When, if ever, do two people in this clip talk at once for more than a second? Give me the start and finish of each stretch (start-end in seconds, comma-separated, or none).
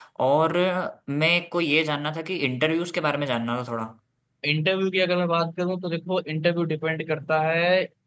none